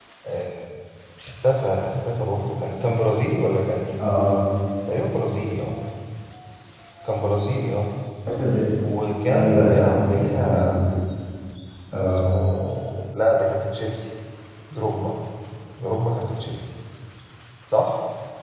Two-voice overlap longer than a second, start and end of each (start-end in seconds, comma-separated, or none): 9.3-10.7